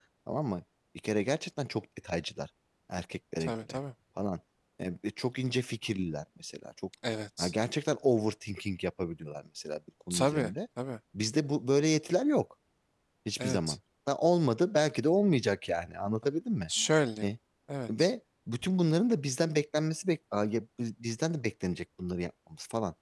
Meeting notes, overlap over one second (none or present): none